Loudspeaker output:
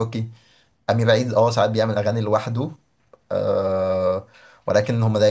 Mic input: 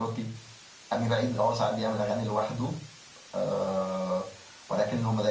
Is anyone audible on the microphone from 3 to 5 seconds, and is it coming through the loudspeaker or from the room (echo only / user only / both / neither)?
echo only